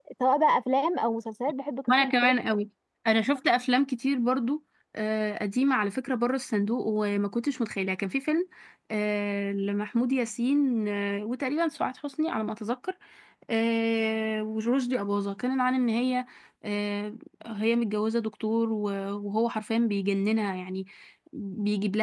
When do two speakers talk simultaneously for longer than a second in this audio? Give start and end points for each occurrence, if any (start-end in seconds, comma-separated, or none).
none